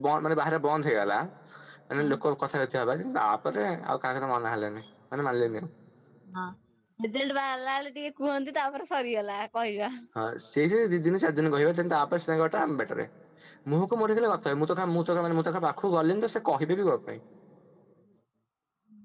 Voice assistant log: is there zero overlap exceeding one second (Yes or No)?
Yes